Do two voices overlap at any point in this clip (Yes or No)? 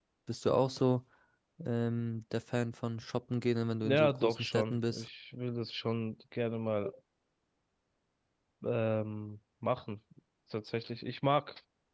Yes